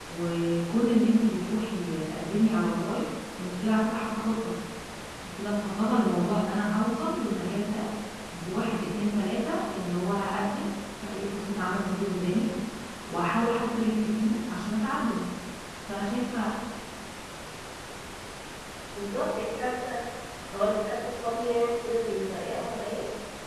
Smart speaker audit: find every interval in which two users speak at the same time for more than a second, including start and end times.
none

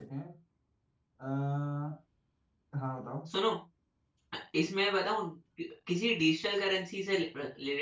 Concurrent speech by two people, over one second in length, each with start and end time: none

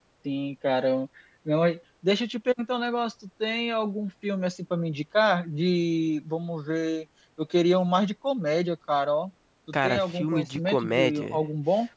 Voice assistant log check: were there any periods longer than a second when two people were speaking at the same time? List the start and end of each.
9.8-11.4

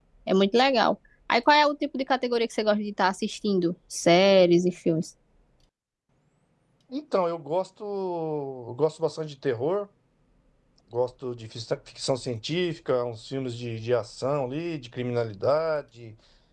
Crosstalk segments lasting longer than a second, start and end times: none

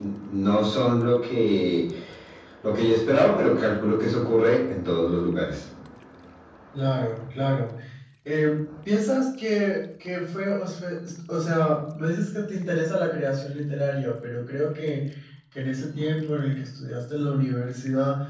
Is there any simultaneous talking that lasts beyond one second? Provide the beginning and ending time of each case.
none

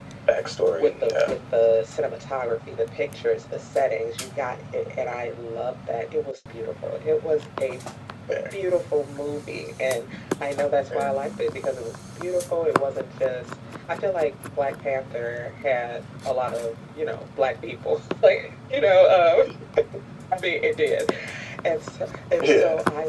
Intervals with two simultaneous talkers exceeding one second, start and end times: none

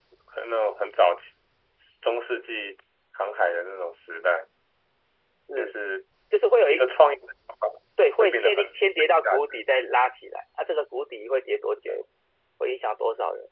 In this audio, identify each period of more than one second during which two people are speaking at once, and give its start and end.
8.2-9.7

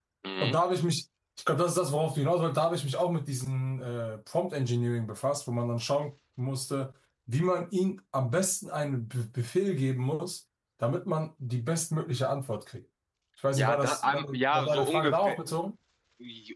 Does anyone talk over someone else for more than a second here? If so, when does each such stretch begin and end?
13.6-15.4

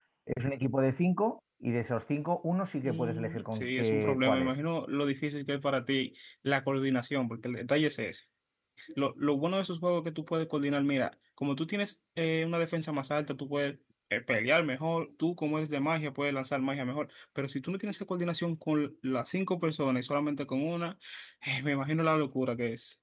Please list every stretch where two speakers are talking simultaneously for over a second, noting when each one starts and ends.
2.8-4.5

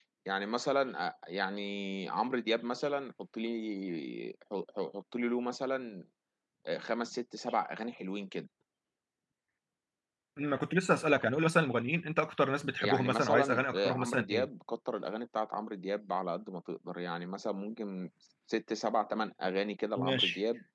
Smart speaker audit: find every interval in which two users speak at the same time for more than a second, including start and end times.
12.8-14.5

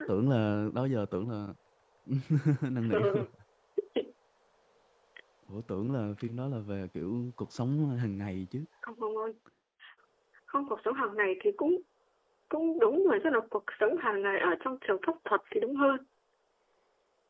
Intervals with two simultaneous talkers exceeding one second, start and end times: none

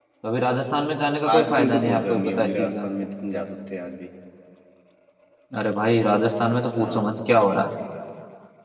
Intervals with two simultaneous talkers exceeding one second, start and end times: 1.3-2.8

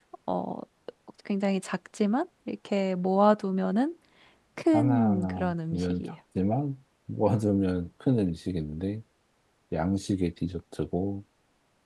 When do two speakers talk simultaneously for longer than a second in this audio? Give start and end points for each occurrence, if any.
4.7-6.0

